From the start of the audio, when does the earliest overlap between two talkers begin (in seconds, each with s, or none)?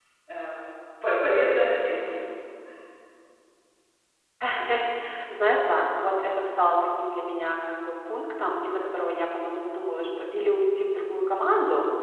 none